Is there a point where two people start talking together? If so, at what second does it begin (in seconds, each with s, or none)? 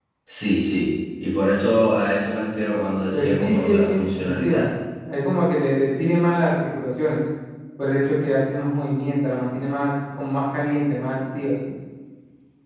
3.1 s